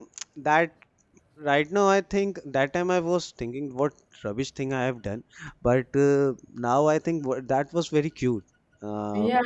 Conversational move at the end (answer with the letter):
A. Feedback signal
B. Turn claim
B